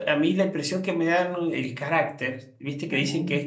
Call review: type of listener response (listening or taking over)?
listening